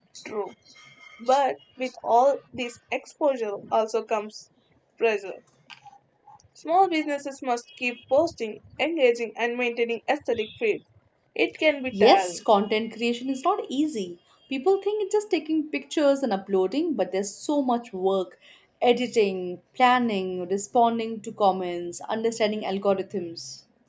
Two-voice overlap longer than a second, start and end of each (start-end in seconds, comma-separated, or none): none